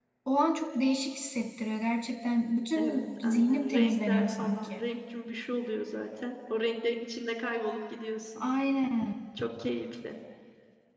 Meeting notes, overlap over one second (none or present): present